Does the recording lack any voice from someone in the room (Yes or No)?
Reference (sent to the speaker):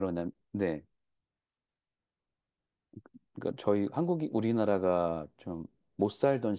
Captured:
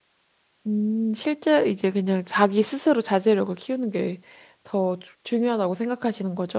No